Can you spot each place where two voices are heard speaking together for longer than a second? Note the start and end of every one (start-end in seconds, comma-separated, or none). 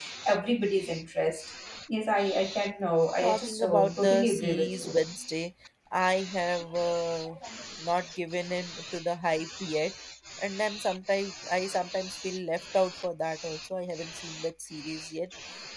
3.2-5.0